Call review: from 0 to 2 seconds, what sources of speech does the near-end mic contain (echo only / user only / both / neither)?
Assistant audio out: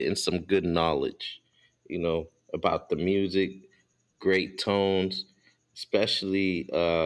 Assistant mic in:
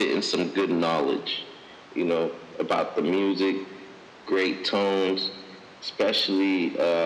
echo only